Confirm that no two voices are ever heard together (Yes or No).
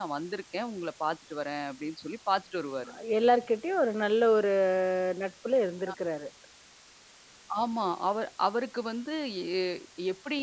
Yes